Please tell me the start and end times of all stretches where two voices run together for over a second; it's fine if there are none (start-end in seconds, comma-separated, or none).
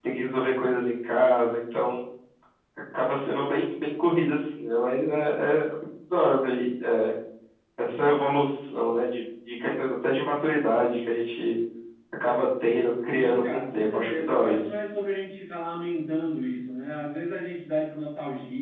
13.1-14.6